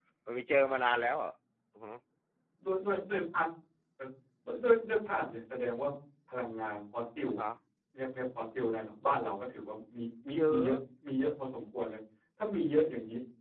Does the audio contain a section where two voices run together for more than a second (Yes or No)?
No